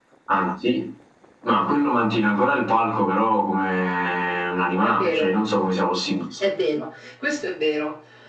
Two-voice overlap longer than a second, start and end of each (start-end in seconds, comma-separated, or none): none